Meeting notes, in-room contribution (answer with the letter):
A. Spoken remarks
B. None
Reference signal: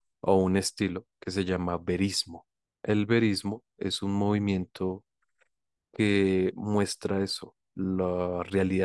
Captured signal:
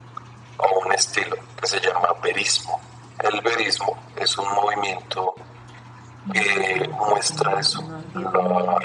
A